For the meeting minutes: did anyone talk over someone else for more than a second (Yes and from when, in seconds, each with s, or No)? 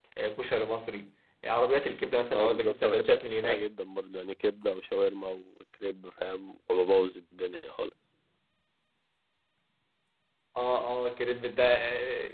Yes, from 2.3 s